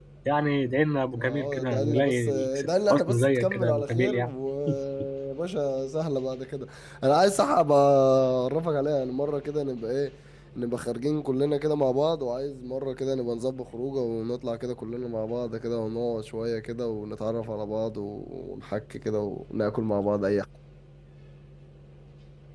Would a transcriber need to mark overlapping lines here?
Yes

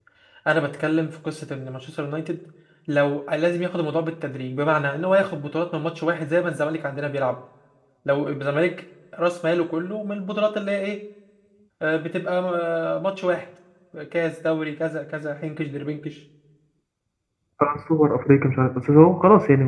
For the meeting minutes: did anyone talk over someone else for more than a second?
No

